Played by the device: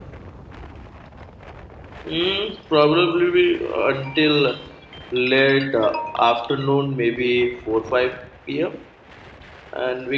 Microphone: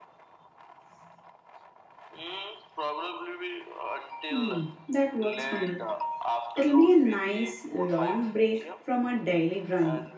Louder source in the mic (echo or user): user